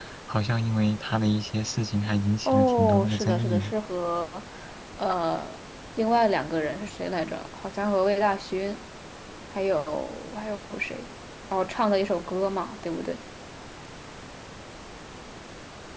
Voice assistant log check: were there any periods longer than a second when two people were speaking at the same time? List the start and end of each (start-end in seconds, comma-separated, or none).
2.5-3.7